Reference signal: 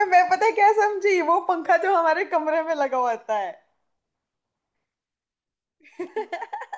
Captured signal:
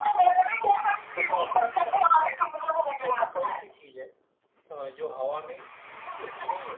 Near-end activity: present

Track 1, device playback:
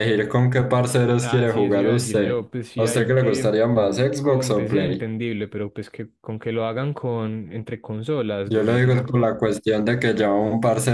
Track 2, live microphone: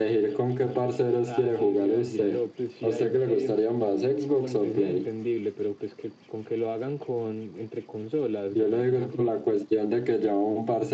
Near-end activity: none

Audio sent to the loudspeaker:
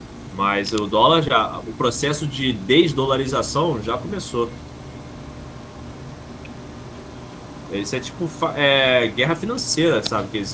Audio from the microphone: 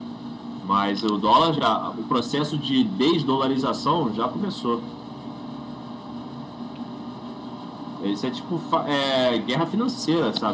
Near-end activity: none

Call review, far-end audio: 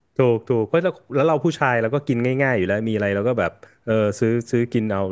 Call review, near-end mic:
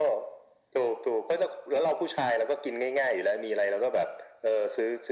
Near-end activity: none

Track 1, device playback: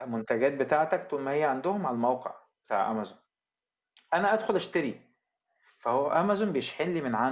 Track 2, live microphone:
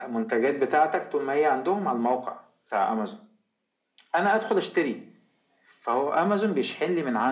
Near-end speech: none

